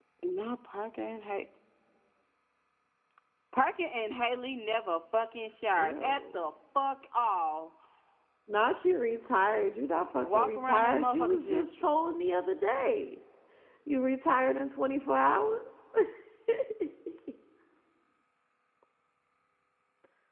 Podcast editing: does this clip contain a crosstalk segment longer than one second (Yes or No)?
Yes